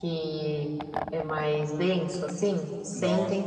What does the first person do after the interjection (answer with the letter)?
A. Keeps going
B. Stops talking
B